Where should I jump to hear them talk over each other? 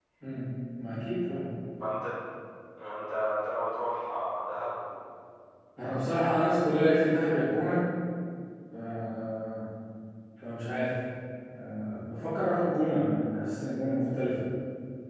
none

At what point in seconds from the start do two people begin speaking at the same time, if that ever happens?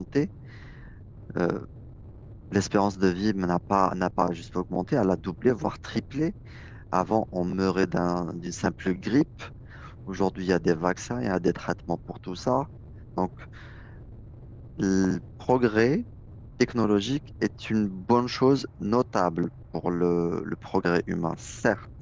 none

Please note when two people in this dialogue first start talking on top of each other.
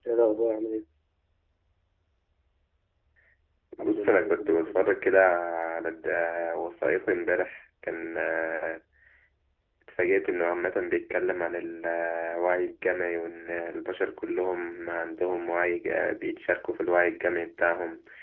4 s

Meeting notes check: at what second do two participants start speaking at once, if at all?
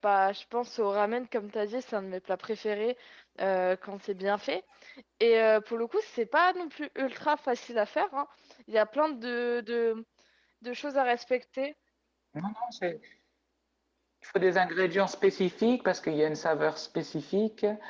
none

